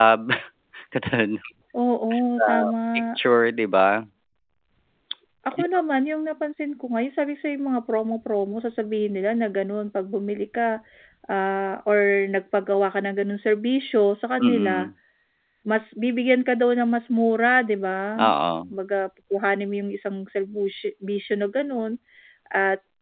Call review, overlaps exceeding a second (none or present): none